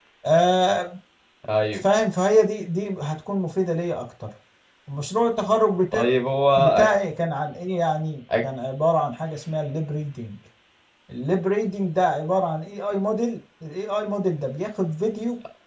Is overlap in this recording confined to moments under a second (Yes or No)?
Yes